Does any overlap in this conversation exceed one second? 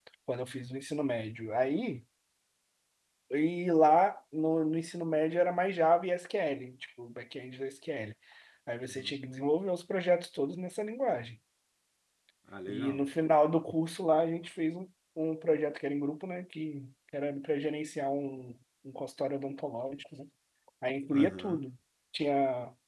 No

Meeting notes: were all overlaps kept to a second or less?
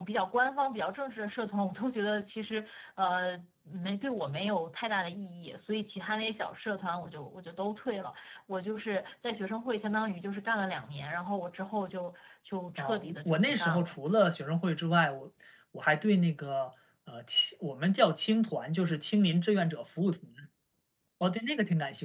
No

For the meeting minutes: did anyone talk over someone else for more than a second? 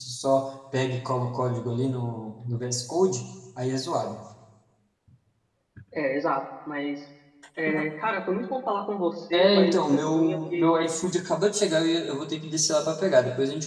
Yes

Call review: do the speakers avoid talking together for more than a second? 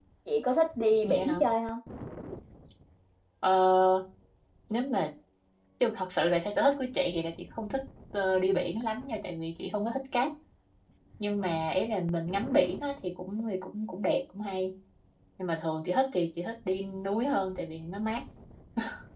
Yes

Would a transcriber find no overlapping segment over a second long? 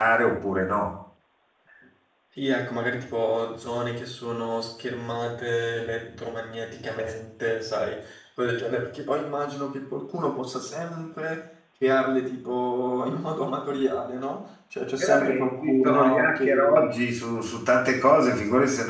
No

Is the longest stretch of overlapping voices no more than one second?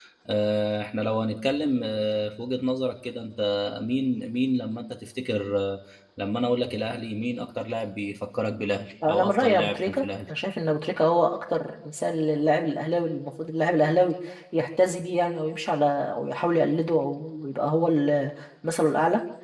No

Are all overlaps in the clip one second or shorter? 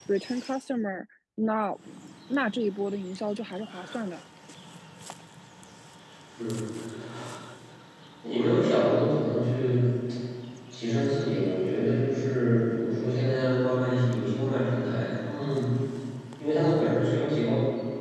Yes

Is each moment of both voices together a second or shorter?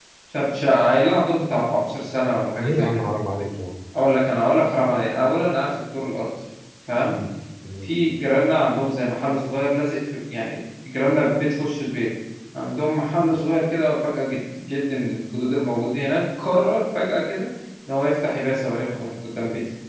Yes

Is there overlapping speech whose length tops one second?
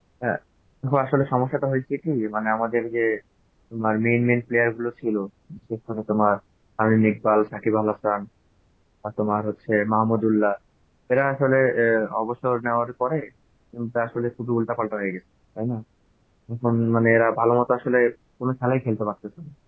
No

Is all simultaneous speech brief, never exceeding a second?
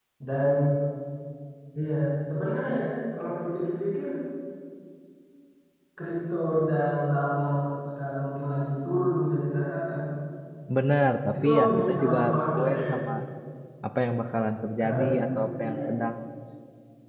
No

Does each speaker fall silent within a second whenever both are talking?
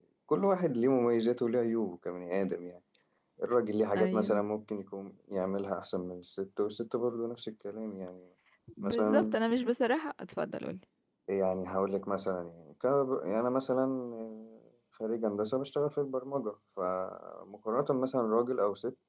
Yes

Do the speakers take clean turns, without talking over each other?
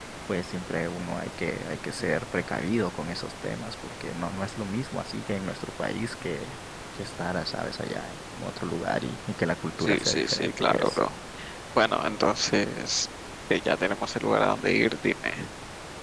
No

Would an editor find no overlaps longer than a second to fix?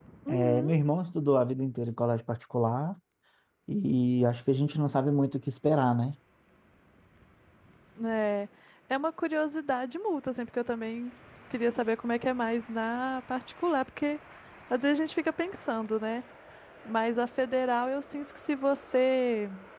Yes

